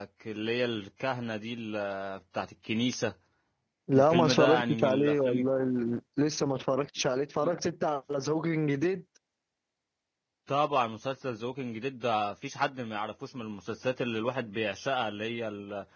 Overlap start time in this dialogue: 3.9 s

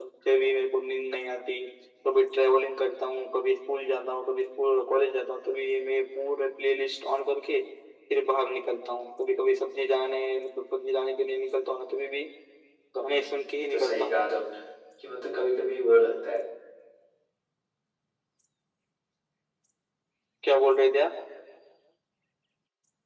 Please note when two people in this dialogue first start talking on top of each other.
13.0 s

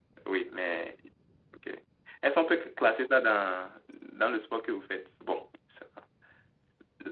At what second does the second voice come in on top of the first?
none

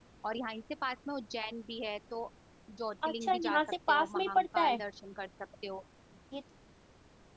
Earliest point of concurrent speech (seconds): 3.0 s

